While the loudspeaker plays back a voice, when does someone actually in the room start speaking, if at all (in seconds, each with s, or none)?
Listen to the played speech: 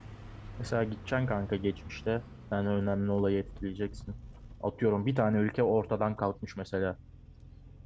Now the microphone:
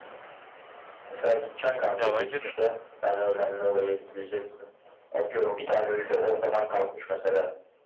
1.9 s